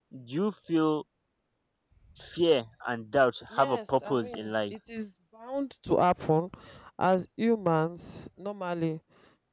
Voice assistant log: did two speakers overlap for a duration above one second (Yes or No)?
Yes